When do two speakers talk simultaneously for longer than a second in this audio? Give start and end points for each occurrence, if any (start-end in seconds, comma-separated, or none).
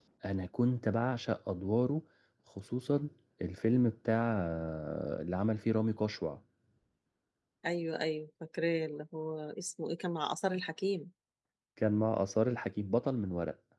none